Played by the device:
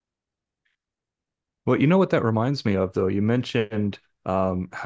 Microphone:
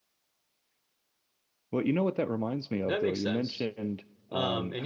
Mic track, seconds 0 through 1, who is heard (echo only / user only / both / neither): neither